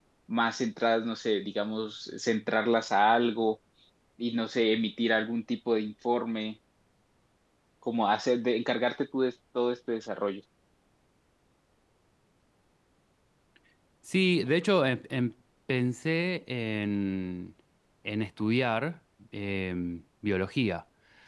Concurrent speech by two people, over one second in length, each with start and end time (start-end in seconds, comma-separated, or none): none